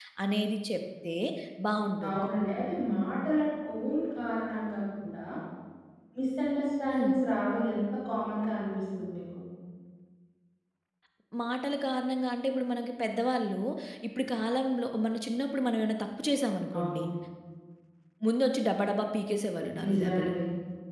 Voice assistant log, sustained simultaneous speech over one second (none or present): none